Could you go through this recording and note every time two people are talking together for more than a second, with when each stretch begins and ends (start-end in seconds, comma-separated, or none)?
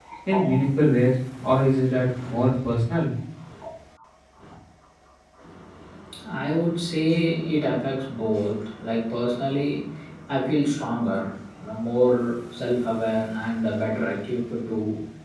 none